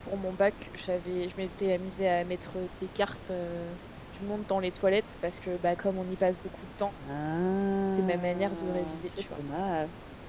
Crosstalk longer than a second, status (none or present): present